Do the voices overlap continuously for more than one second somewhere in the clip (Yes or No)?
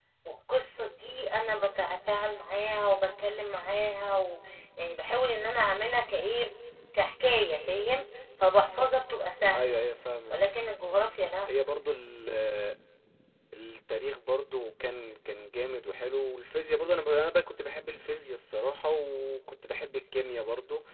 No